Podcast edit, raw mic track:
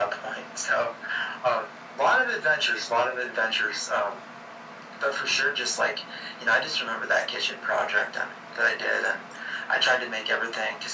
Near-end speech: none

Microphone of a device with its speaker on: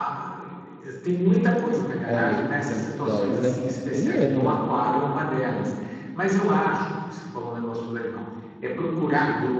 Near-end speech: present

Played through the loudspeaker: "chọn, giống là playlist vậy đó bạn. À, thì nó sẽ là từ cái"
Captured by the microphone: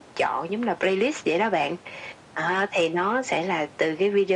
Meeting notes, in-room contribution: none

